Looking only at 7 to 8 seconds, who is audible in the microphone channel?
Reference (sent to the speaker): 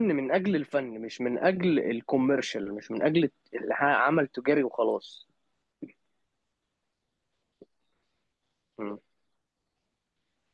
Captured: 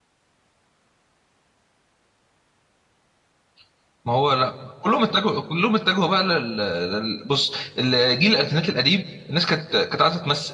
user only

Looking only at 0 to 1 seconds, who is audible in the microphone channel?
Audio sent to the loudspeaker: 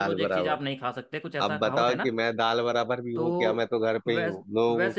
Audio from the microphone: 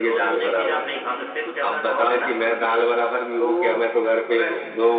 echo only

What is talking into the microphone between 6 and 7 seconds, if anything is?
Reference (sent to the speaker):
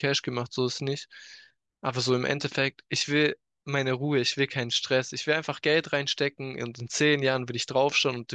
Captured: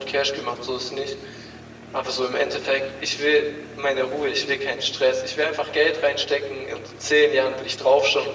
echo only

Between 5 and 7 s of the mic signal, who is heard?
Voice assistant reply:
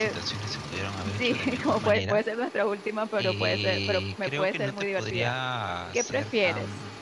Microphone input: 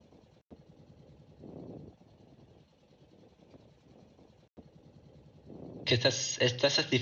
user only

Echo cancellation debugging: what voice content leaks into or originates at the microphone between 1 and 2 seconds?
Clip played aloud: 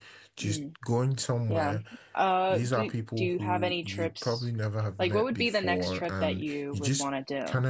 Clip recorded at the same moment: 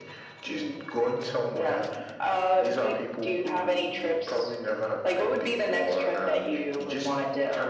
echo only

